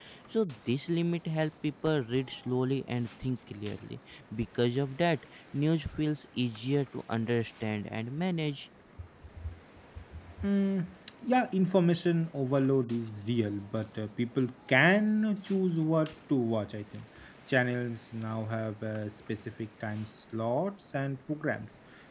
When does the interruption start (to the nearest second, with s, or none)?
none